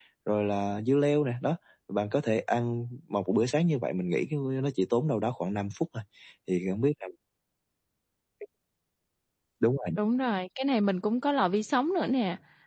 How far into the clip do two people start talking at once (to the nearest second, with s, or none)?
none